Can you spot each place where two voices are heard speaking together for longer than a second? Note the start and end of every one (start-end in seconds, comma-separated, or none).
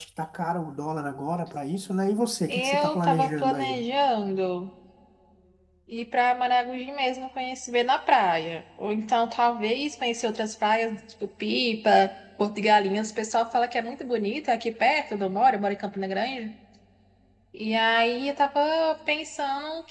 2.5-3.8